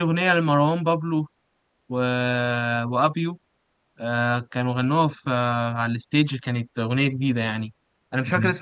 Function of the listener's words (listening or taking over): listening